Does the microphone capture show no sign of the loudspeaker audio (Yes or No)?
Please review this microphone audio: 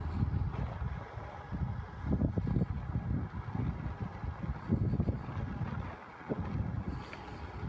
Yes